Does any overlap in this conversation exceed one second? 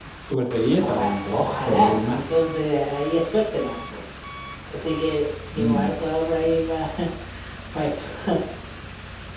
Yes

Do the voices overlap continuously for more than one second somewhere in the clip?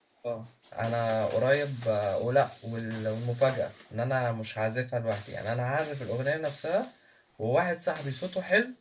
No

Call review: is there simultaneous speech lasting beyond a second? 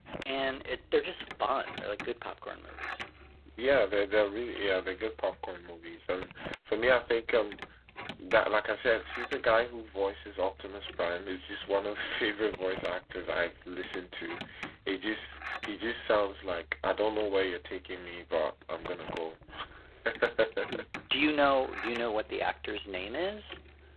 No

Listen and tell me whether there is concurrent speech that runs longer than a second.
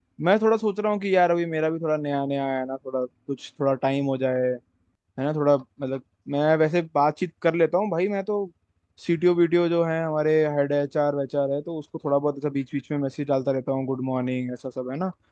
No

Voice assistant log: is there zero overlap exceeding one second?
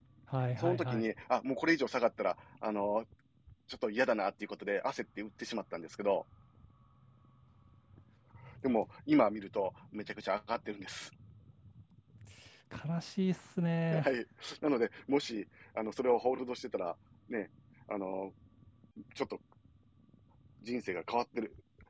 Yes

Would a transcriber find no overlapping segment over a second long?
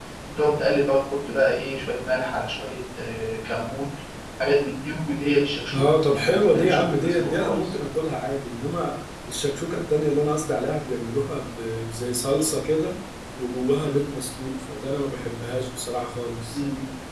No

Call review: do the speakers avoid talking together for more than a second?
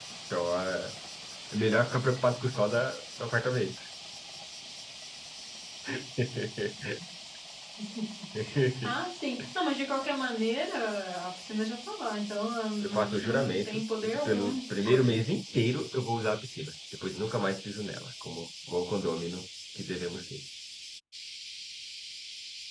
No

